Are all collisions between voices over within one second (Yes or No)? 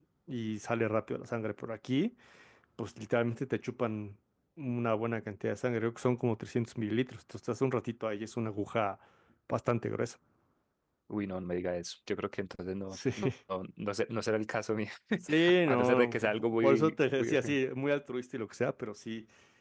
No